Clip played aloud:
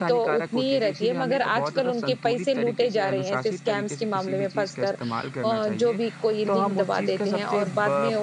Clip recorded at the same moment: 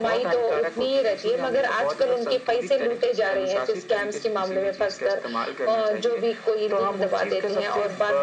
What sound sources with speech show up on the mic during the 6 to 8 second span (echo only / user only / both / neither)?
echo only